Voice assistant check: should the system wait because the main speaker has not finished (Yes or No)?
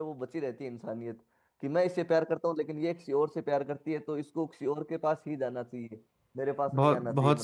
No